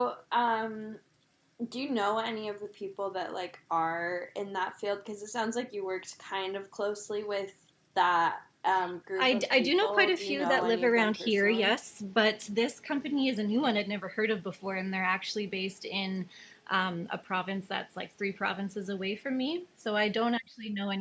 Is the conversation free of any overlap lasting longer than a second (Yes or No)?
No